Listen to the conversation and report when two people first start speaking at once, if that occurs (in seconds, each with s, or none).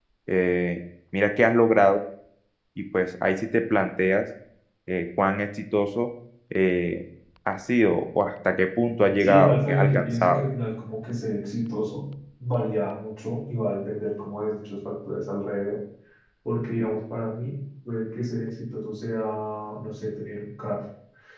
9.2 s